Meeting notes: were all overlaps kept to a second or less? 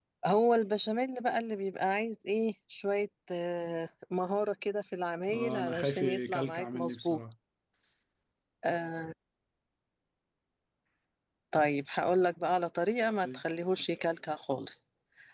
No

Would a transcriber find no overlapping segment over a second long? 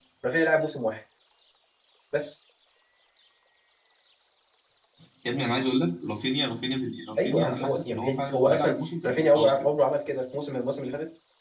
No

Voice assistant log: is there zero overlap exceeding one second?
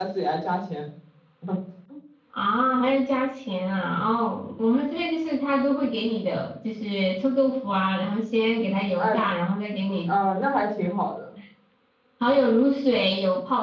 Yes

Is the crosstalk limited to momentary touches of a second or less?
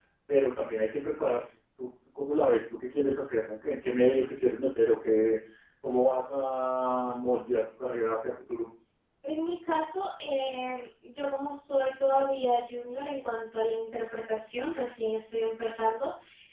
Yes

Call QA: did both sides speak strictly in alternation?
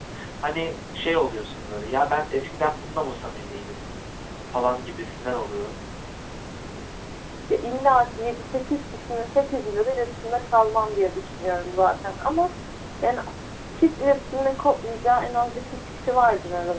Yes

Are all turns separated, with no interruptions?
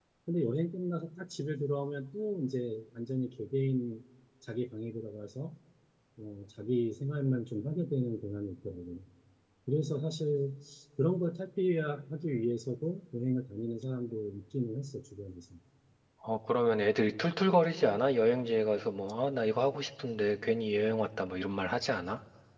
Yes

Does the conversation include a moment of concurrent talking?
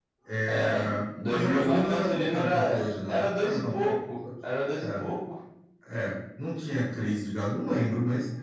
Yes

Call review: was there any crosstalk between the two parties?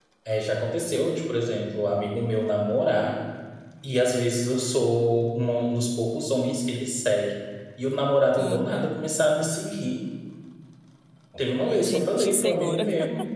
Yes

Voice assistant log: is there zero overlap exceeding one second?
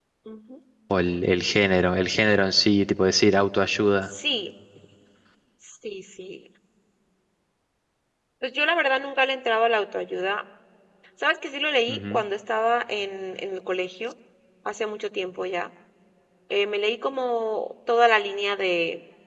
Yes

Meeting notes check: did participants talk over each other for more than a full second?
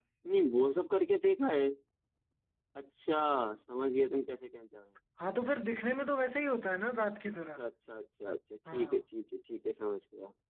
No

